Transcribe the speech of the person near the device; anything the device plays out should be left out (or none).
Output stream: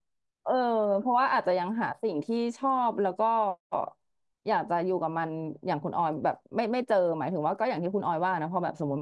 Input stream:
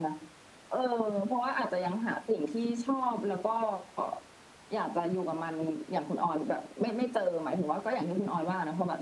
none